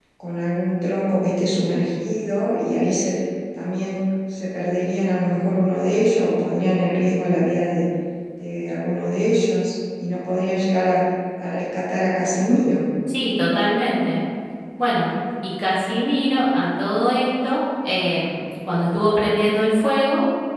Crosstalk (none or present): none